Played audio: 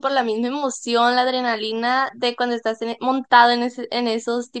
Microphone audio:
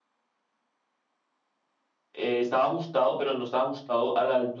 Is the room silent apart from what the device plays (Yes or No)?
No